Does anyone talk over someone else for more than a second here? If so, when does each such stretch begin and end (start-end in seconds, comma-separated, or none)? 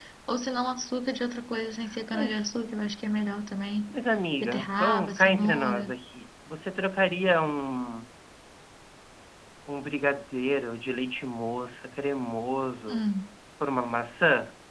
4.4-5.9